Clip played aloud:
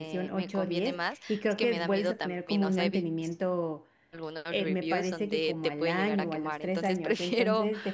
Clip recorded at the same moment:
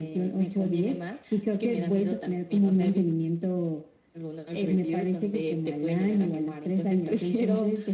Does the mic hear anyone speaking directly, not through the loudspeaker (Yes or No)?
No